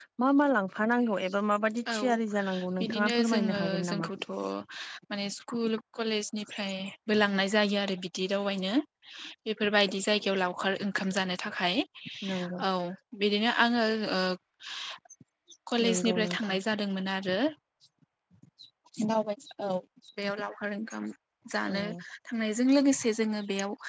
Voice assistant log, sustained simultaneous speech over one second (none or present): present